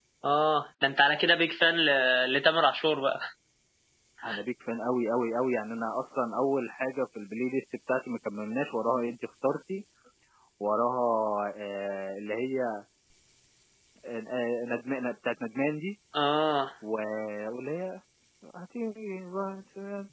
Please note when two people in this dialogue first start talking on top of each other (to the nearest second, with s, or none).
none